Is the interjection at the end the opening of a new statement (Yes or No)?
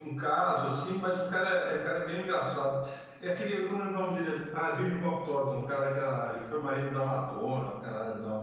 Yes